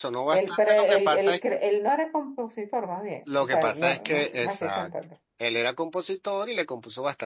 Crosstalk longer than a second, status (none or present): present